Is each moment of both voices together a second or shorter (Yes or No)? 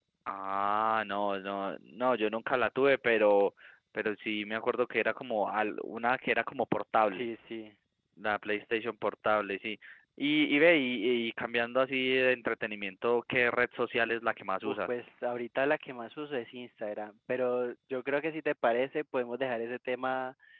Yes